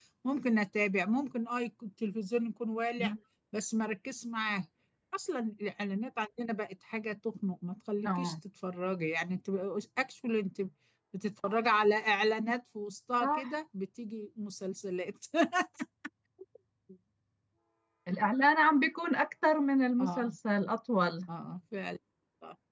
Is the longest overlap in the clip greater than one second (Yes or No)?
No